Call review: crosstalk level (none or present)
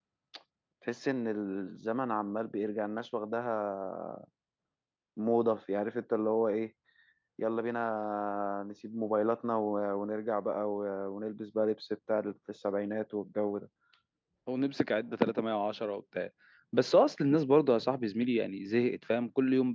none